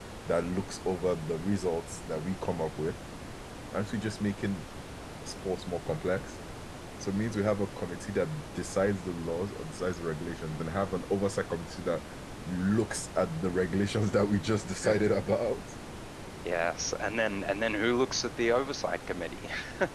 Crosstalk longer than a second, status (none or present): none